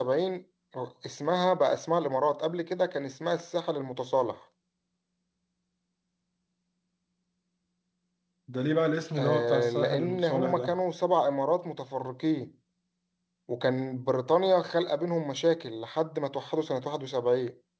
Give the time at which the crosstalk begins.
9.2 s

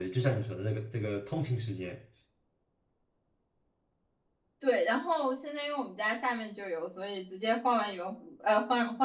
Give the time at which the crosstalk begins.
none

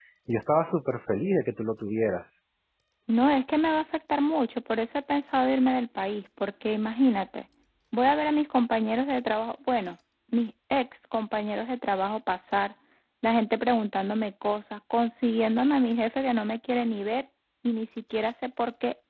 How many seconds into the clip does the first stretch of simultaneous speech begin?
none

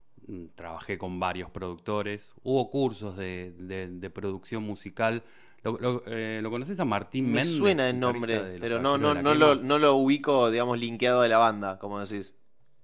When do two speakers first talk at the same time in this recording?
7.2 s

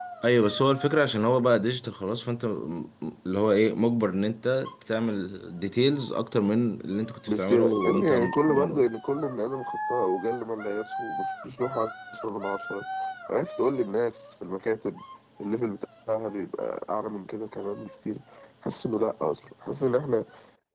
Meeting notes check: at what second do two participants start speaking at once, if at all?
7.3 s

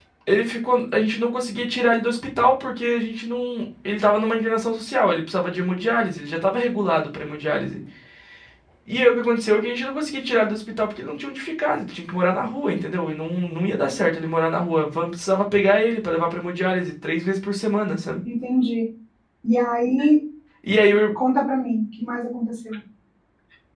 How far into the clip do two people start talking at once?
none

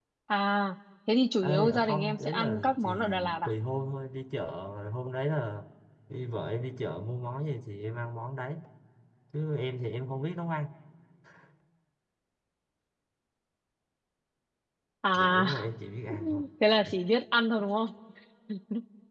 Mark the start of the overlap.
1.4 s

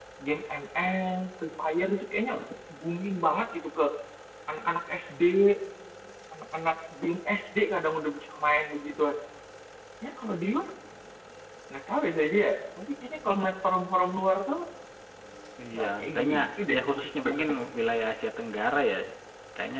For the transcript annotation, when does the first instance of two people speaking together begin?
15.7 s

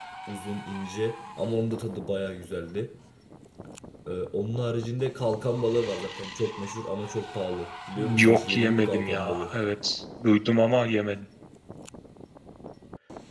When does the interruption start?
8.0 s

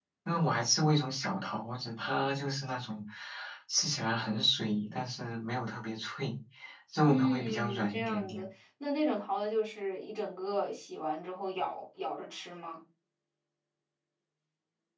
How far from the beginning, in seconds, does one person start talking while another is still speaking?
7.0 s

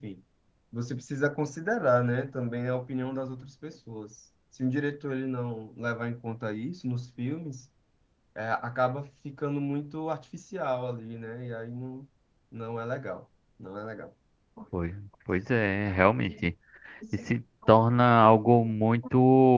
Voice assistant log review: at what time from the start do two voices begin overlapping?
none

